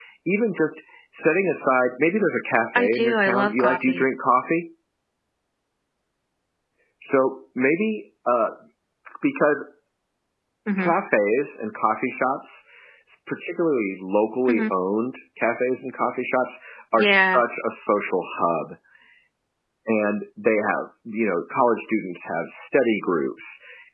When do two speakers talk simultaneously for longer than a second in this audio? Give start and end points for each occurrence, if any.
2.8-4.0

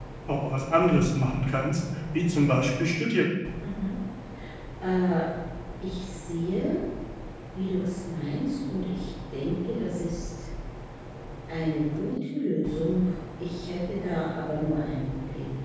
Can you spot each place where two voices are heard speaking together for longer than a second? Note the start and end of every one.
none

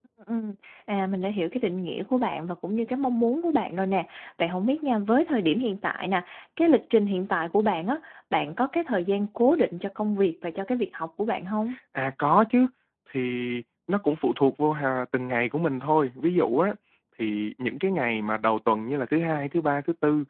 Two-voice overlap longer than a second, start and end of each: none

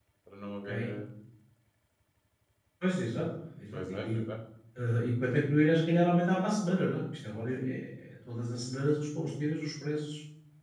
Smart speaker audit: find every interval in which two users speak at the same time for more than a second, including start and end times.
none

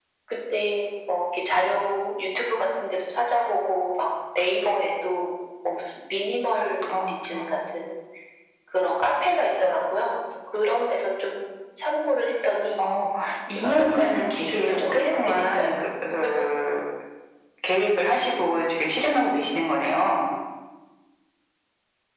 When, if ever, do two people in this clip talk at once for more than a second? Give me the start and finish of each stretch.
13.6-15.7

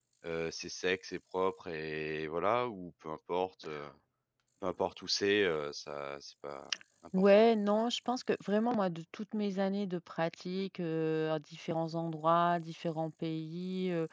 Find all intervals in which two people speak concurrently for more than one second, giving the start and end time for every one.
none

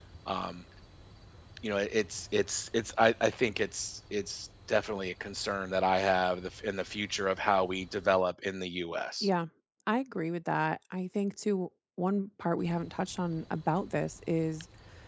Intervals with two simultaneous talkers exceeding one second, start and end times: none

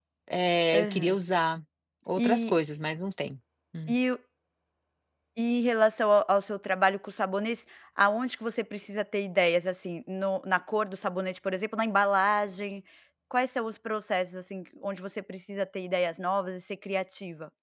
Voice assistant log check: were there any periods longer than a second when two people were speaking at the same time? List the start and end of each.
none

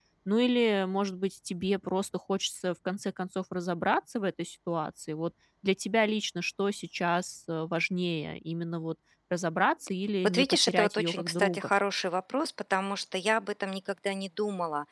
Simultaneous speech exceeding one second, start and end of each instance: 10.2-11.7

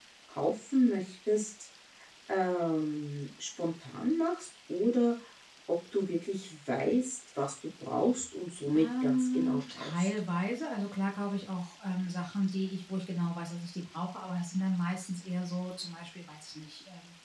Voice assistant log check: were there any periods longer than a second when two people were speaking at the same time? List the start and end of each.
8.7-10.1

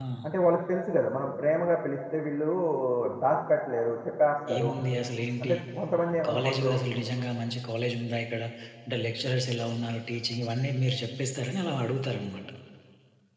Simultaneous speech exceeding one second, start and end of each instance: none

